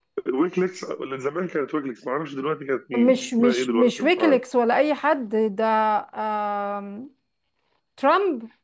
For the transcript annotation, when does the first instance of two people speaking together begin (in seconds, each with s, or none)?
2.9 s